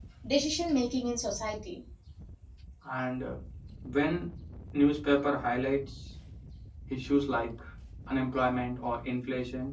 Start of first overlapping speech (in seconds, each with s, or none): none